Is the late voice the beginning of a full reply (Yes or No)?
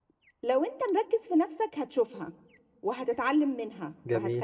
No